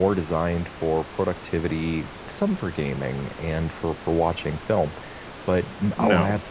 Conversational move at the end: listening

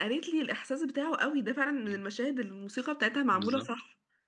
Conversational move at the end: taking over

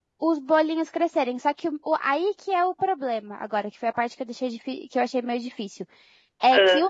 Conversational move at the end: listening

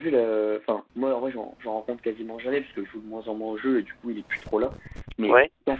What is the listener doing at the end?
listening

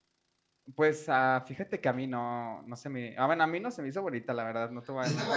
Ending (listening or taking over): taking over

